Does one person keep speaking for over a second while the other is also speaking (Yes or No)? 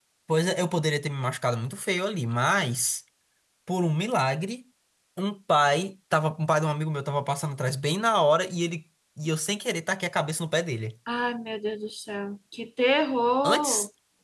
No